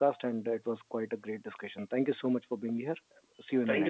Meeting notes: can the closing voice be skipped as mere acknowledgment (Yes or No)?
No